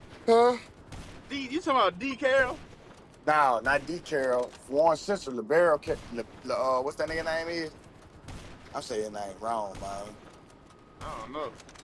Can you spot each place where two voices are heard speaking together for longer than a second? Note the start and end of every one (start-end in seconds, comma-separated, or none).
none